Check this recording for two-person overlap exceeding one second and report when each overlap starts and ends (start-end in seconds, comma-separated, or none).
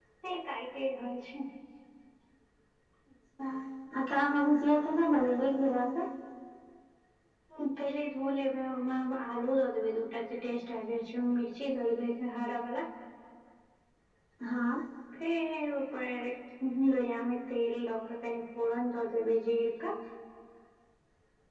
none